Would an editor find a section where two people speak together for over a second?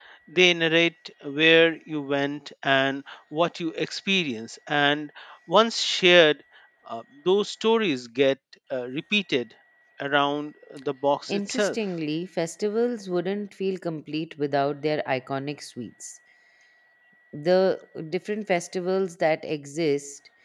No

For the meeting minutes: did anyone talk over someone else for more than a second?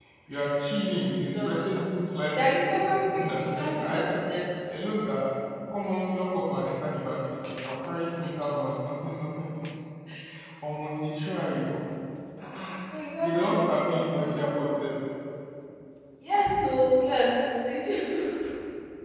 Yes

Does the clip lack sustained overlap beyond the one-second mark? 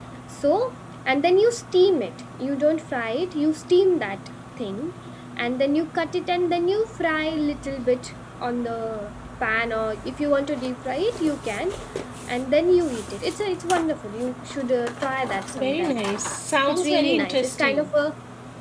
No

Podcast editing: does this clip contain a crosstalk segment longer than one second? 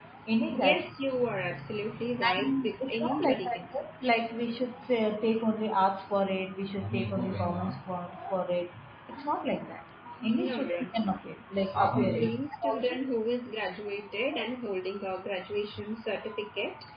Yes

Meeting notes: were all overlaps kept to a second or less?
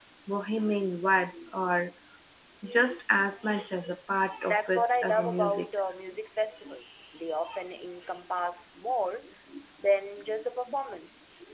No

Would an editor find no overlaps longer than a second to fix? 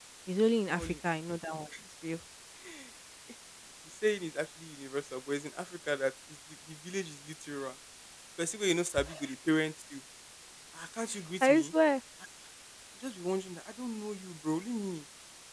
Yes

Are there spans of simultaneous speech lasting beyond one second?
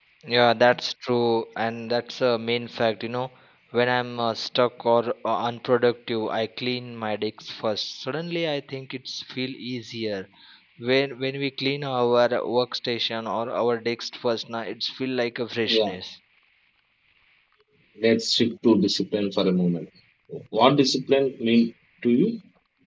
No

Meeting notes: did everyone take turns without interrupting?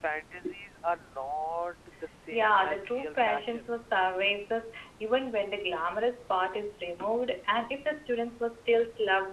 No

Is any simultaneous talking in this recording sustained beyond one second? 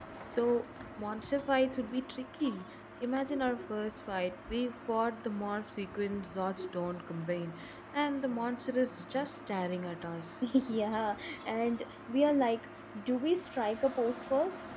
No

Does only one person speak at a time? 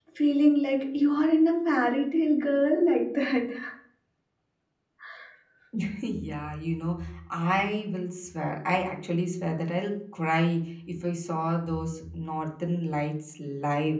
Yes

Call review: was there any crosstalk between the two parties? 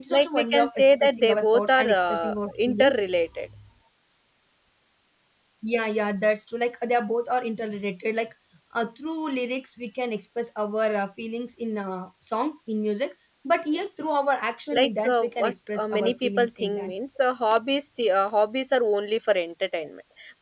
Yes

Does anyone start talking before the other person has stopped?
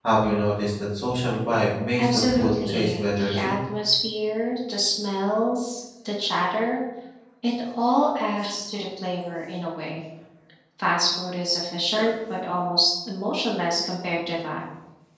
Yes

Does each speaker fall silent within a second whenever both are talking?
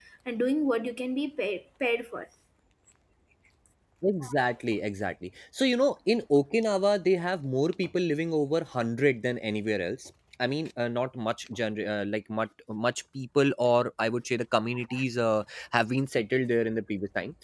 Yes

